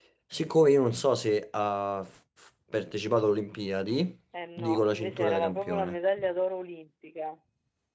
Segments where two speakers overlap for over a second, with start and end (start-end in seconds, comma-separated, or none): 4.6-6.0